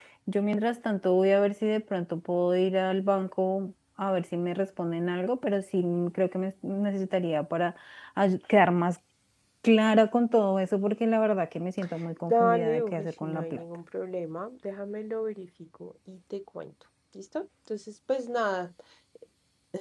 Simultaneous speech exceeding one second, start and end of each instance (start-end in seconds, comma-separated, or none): 12.3-13.6